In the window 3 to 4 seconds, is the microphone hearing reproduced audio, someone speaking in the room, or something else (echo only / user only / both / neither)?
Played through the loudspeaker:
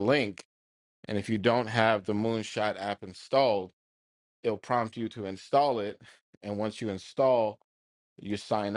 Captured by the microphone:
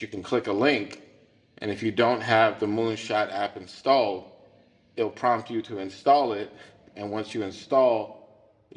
echo only